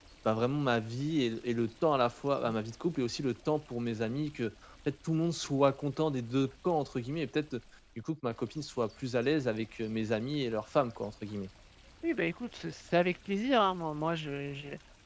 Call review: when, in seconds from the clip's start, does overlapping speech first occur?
none

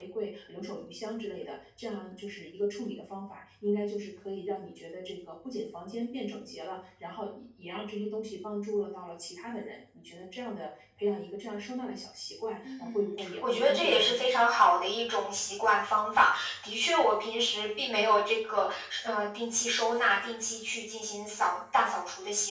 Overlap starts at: 13 s

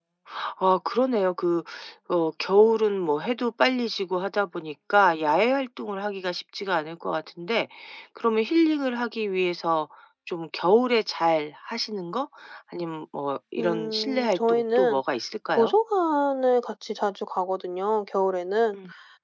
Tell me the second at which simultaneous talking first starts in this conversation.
14 s

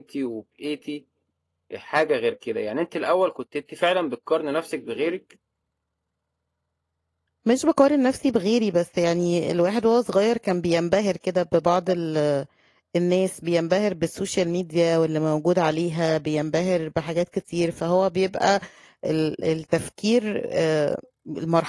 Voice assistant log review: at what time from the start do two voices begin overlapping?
none

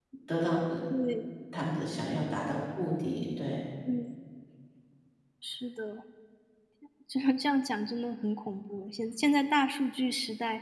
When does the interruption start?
none

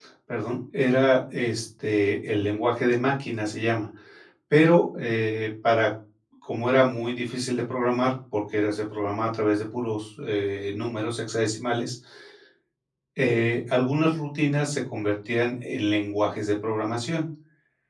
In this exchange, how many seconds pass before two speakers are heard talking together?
none

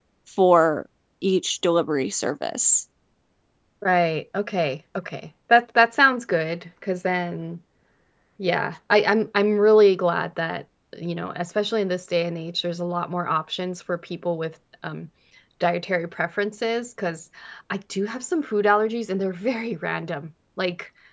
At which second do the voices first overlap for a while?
none

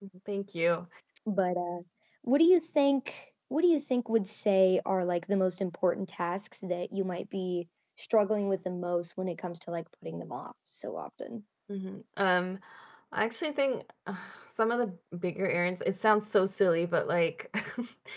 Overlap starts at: none

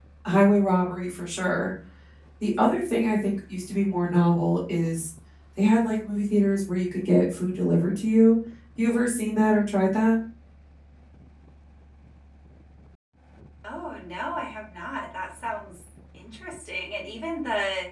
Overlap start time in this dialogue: none

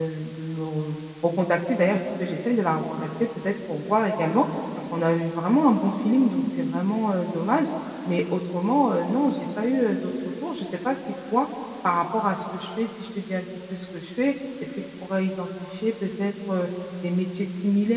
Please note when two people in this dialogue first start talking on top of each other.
none

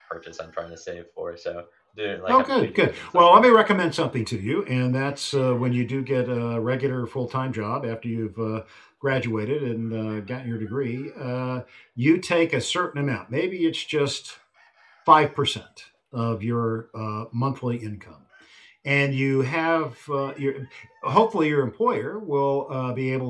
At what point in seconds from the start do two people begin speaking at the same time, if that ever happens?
2 s

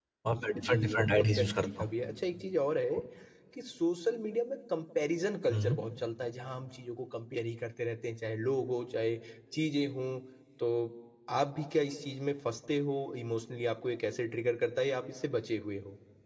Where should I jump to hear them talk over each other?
1 s

